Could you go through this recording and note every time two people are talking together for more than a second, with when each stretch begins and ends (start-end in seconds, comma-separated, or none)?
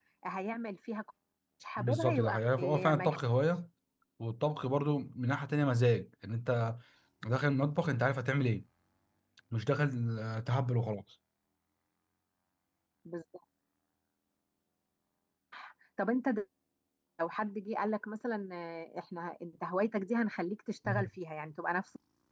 1.8-3.2